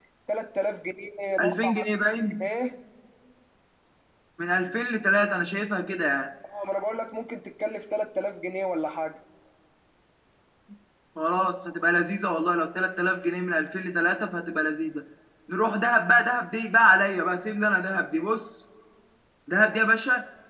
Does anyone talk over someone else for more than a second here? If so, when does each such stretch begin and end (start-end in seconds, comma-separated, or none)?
none